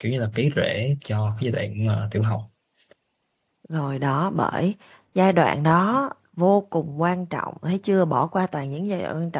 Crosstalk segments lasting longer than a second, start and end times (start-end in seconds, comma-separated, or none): none